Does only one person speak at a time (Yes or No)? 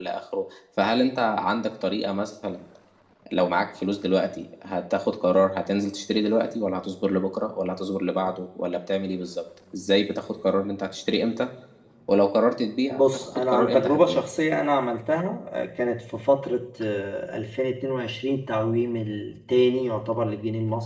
No